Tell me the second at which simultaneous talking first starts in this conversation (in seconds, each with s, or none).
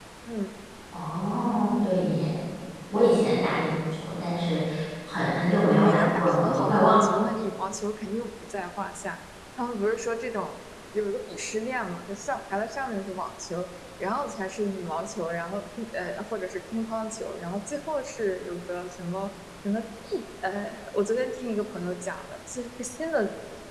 5.5 s